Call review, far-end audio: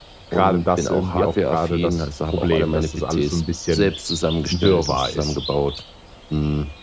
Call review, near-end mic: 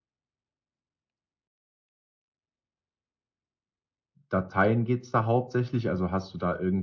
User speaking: Yes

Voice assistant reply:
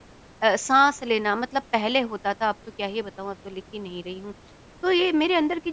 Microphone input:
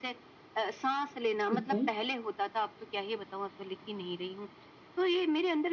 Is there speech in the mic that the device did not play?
Yes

